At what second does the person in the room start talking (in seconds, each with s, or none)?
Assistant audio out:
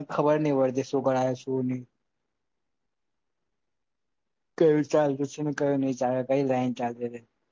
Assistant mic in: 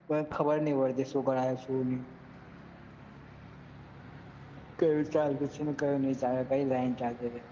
none